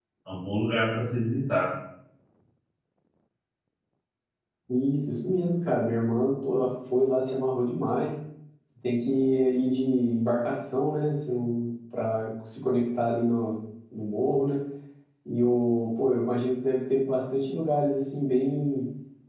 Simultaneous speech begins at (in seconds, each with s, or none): none